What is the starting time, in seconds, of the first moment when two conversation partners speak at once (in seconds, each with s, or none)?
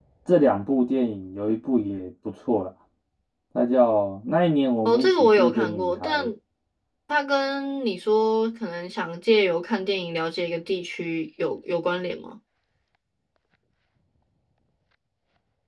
4.8 s